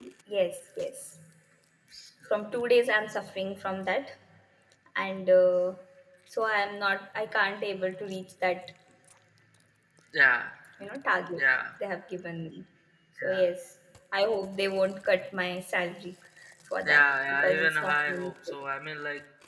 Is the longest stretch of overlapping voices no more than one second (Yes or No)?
No